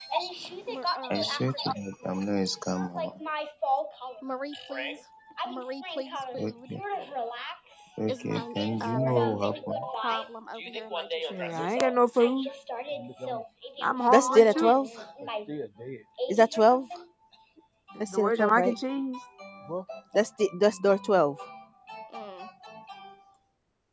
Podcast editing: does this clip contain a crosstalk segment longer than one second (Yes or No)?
Yes